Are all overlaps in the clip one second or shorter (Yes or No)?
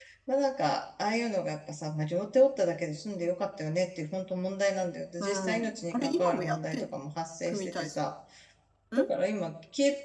No